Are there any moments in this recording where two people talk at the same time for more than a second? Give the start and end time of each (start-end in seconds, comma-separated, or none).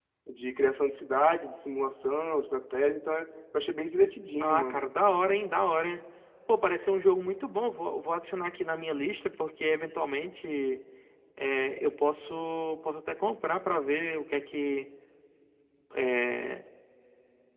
none